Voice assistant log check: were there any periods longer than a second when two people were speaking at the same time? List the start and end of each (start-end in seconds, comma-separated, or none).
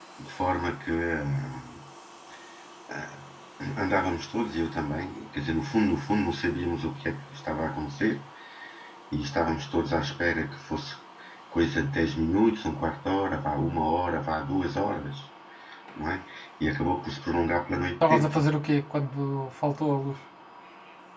none